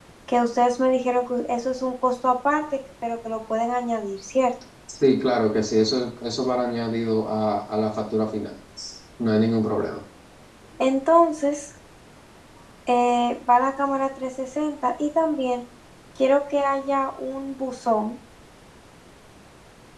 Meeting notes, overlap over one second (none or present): none